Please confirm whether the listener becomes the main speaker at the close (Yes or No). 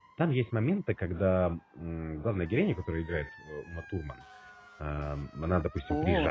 No